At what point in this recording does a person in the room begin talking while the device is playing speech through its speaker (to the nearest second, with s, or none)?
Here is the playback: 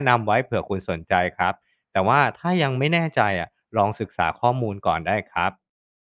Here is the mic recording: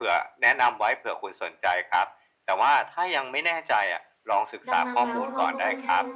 5 s